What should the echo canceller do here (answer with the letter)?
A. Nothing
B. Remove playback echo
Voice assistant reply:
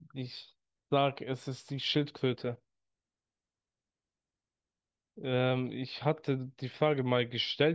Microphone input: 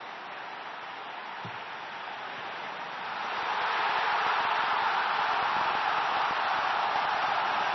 A